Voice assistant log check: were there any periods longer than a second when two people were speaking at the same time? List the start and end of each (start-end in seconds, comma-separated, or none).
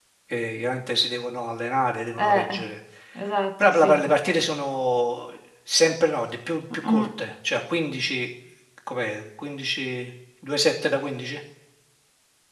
none